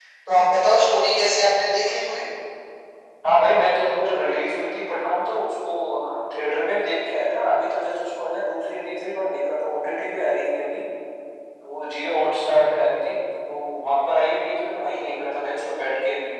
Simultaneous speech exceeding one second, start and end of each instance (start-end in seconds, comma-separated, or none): none